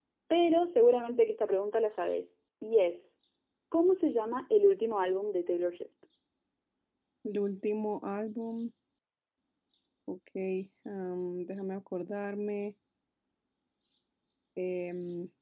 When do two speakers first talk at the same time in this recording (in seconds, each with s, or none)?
none